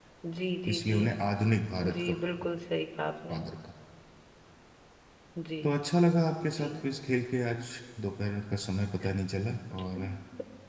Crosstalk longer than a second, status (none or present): none